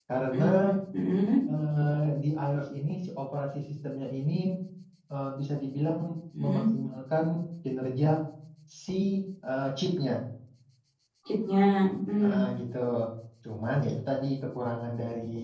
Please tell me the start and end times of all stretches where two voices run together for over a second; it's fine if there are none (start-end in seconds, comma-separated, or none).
none